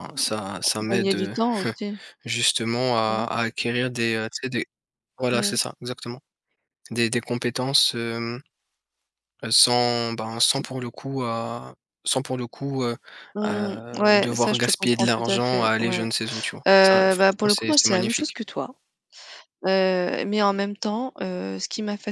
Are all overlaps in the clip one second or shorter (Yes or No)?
No